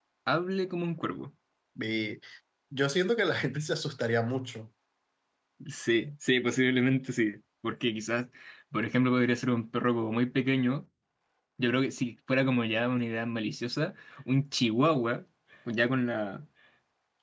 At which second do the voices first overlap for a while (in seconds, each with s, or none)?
none